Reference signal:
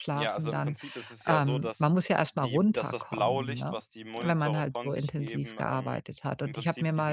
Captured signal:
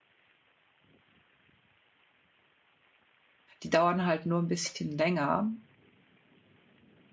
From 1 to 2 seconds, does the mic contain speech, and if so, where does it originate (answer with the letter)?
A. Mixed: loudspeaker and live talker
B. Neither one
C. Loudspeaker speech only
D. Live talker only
B